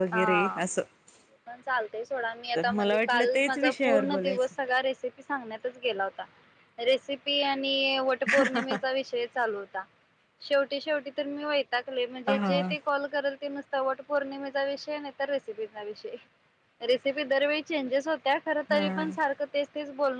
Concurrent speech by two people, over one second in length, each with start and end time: 2.5-4.4

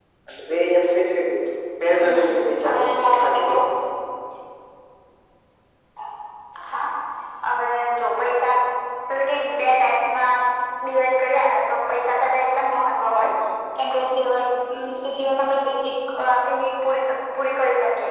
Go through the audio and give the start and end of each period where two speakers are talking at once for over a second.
2.0-3.5

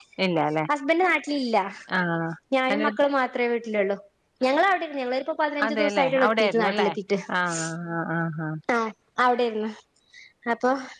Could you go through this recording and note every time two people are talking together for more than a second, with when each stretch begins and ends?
5.7-6.9

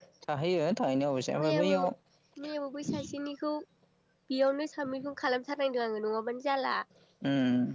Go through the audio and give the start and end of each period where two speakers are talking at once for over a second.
none

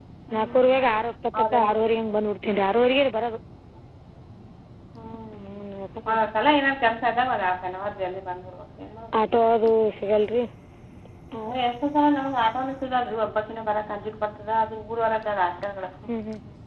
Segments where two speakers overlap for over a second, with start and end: none

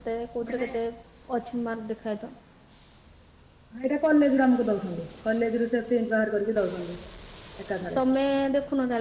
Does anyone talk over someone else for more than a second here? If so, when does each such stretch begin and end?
none

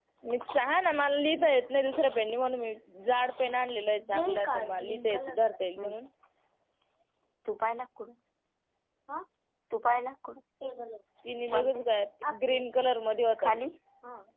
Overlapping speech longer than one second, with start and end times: 4.1-5.4

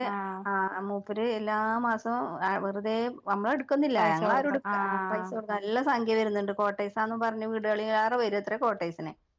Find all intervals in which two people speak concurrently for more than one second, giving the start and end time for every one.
4.0-5.3

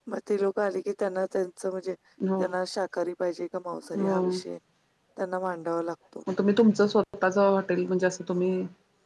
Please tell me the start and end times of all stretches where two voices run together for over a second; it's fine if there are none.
none

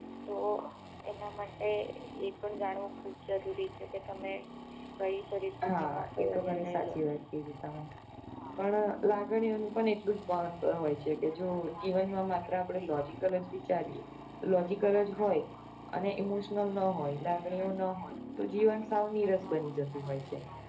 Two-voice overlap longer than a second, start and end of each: 5.7-6.9

